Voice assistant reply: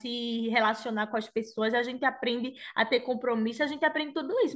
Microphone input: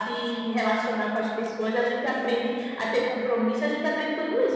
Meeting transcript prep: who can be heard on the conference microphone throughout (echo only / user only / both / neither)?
echo only